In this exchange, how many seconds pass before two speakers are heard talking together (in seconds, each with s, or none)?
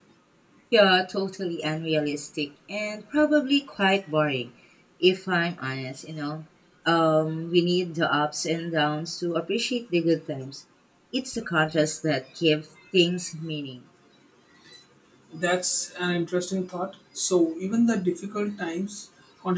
none